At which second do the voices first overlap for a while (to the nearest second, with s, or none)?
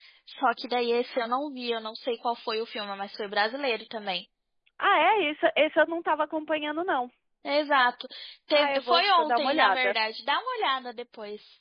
9 s